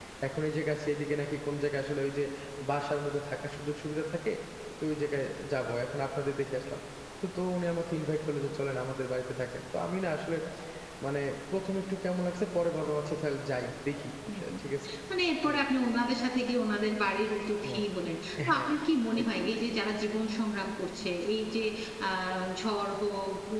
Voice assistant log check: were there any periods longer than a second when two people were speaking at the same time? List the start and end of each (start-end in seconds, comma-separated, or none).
none